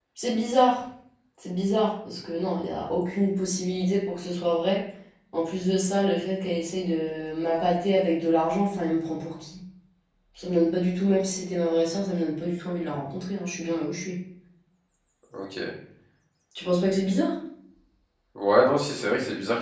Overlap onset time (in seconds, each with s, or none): none